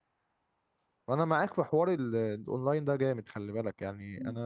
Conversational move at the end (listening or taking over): taking over